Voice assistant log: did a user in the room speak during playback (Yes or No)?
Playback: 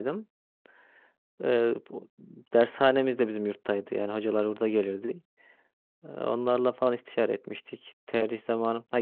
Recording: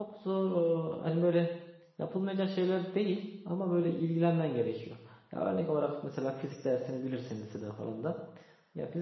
Yes